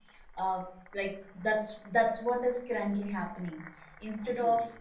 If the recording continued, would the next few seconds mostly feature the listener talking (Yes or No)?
No